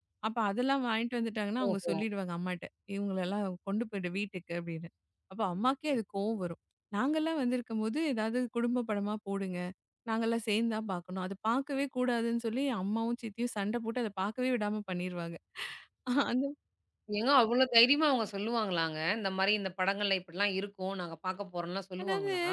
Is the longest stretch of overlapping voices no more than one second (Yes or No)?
Yes